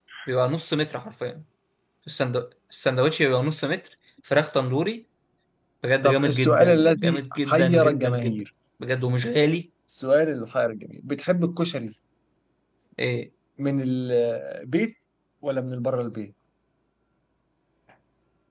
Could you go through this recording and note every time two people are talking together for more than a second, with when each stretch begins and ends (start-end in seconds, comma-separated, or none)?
6.0-8.4